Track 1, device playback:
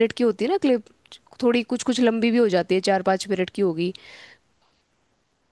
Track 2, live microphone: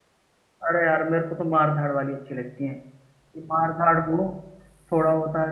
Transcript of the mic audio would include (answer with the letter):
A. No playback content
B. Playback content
A